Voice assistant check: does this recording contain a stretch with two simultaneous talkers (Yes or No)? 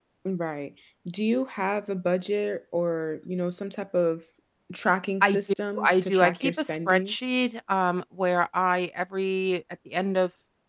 Yes